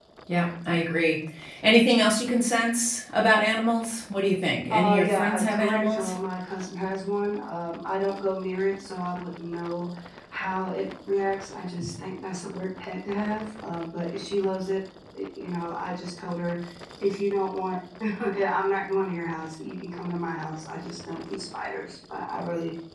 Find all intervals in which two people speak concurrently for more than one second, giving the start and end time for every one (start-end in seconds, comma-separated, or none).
4.7-6.1